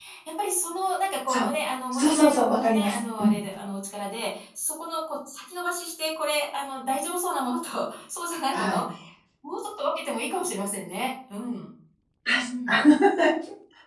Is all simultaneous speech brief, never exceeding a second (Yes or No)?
No